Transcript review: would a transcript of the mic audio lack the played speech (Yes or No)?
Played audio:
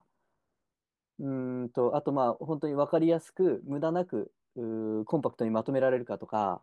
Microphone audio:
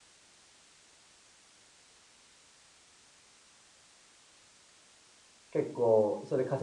Yes